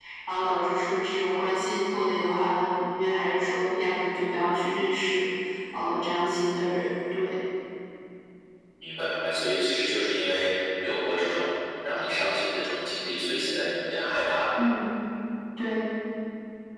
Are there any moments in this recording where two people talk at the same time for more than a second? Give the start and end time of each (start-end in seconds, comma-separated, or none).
none